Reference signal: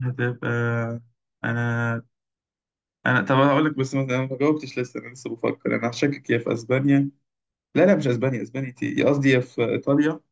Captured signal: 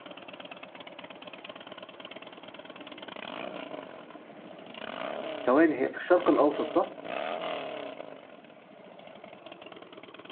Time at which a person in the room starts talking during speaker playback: 5 s

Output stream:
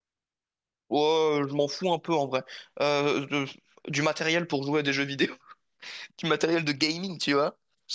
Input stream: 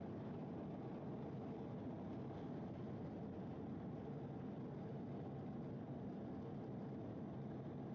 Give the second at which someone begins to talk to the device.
none

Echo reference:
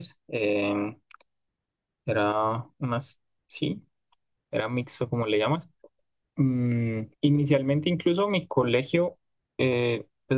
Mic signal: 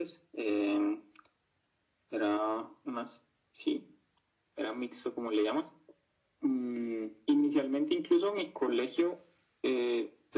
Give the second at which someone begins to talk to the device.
none

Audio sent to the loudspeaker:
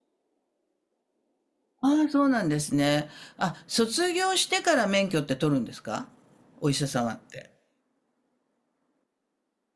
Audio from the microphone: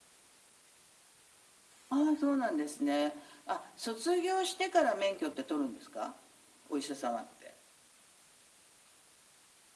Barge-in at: none

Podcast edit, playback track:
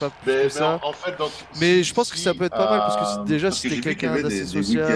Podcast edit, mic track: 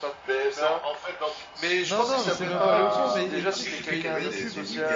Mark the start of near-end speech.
2 s

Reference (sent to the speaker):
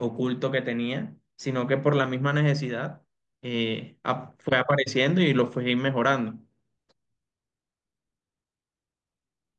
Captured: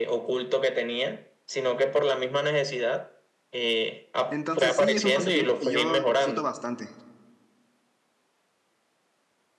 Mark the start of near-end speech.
4 s

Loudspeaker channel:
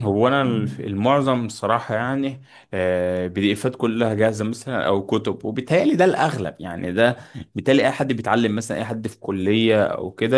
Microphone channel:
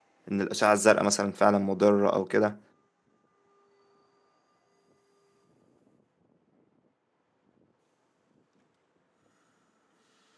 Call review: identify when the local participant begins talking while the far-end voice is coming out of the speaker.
0 s

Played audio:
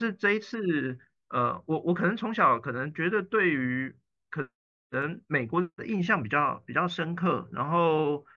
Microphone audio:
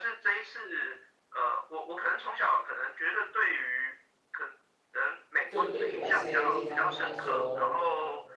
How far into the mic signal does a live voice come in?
5 s

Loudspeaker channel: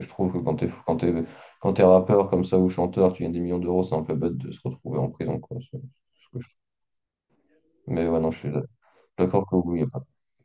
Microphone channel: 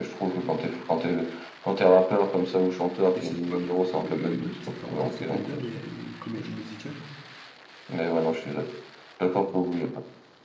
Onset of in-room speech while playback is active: 3 s

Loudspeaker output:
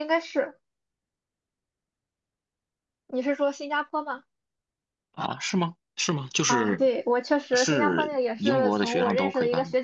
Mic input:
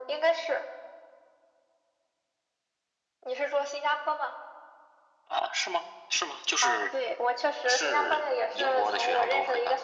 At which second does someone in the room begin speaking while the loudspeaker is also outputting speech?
none

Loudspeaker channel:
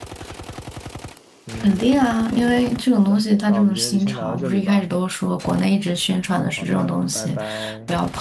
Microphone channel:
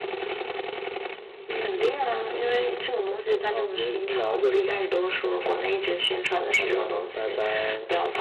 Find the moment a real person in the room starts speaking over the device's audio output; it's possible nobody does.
none

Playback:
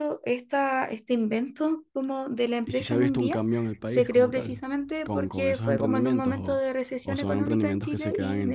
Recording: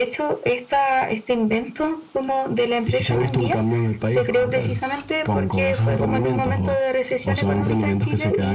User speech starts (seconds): none

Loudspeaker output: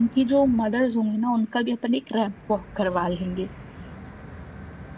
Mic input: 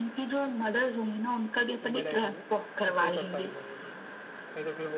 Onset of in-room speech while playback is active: 2 s

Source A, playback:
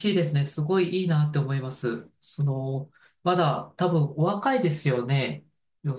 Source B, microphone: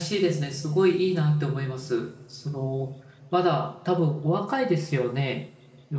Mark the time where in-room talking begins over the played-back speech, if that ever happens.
none

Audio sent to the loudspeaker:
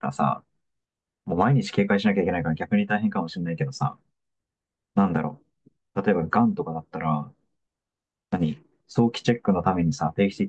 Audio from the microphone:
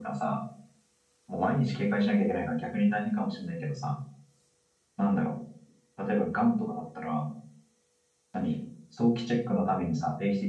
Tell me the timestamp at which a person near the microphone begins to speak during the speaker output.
none

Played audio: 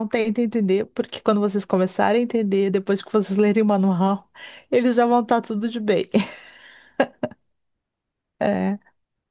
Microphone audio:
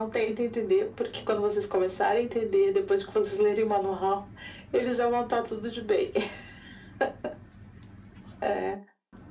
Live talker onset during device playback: none

